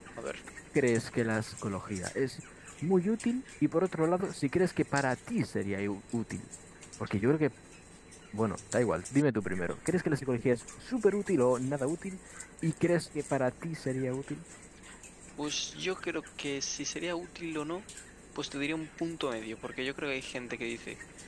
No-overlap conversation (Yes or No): Yes